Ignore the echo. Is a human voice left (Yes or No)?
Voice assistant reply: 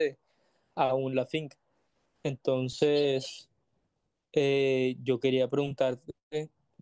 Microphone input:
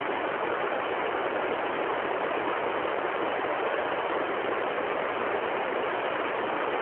No